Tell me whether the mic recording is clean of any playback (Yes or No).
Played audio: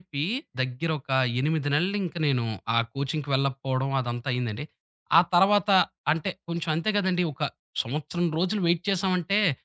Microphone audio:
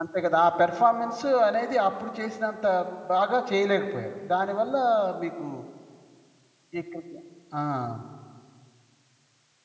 Yes